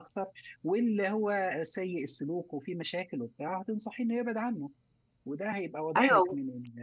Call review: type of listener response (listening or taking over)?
listening